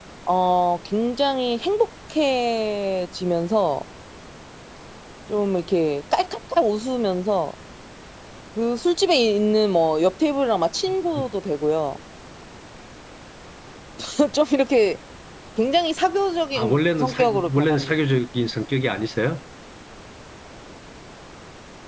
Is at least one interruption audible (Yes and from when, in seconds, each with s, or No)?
Yes, from 16.6 s